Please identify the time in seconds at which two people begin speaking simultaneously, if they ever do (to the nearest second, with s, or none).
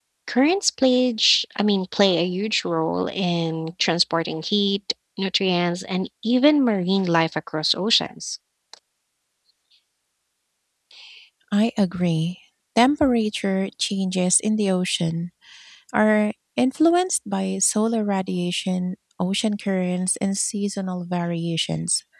none